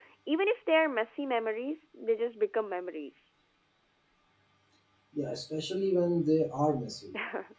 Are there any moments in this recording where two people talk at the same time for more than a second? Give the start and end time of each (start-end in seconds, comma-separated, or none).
none